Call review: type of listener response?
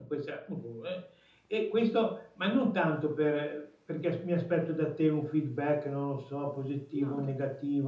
listening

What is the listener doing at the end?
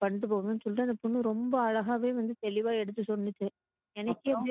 listening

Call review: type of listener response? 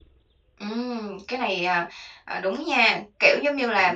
listening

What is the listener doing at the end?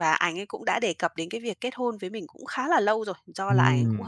listening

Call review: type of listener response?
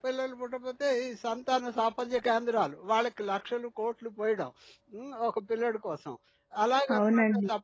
listening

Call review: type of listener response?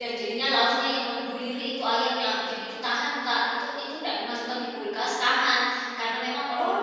listening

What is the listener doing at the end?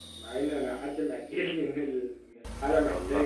listening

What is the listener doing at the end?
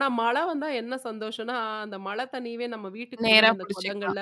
listening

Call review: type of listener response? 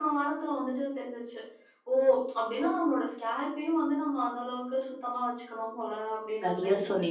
taking over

